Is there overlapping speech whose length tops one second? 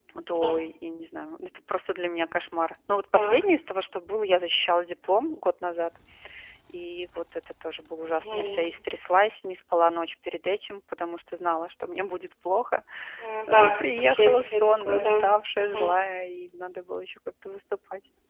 Yes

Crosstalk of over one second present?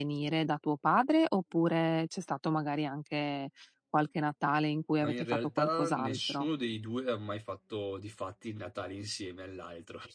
Yes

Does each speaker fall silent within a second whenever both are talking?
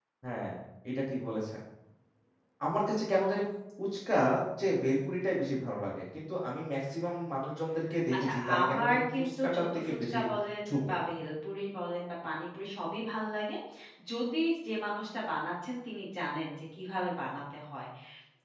No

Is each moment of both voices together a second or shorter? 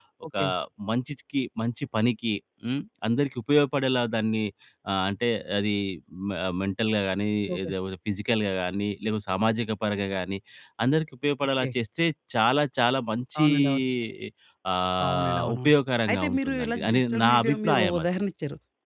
No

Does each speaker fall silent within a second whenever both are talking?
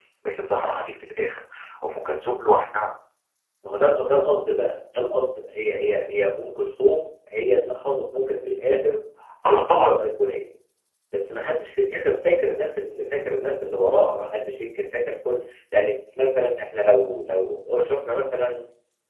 Yes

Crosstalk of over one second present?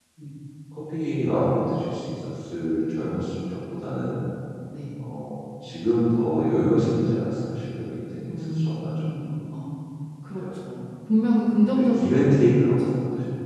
Yes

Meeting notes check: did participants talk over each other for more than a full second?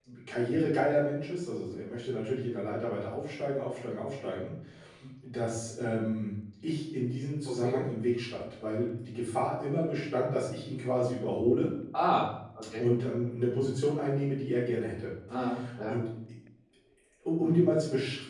No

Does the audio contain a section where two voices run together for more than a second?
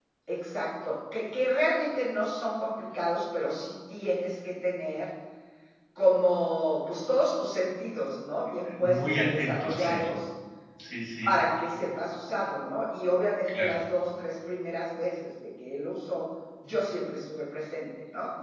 Yes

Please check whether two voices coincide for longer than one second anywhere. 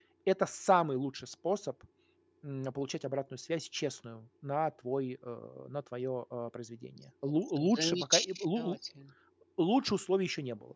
Yes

